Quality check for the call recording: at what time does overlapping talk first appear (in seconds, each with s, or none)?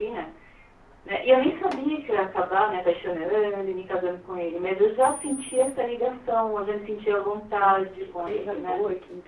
7.6 s